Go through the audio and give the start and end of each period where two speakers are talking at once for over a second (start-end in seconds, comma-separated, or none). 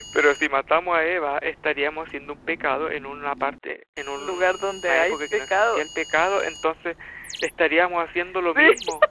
4.2-5.8